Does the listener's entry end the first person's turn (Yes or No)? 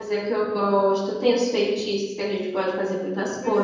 Yes